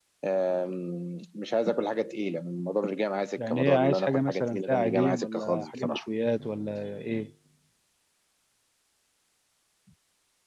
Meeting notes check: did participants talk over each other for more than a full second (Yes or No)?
Yes